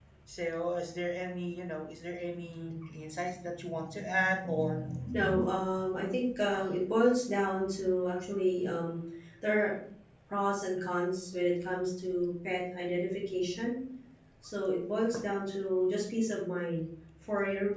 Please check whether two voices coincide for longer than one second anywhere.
No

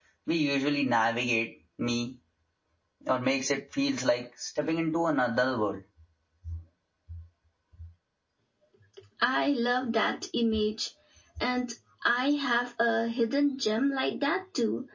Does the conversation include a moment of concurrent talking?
No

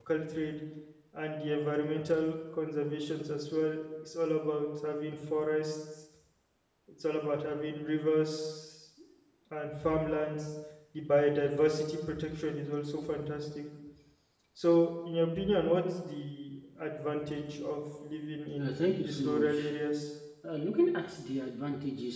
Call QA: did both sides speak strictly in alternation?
No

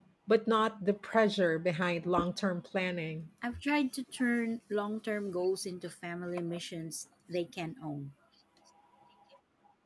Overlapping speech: No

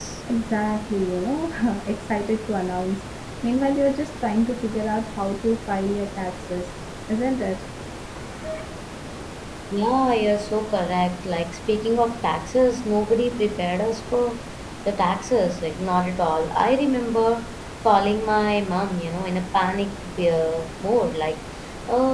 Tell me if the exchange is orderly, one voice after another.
Yes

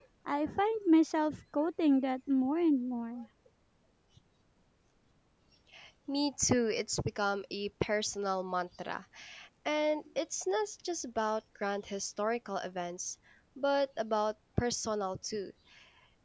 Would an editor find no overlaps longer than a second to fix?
Yes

